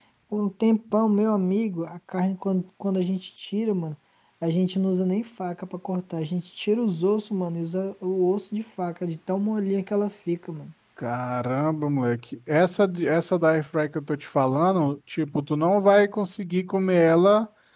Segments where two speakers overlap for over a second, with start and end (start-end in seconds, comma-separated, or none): none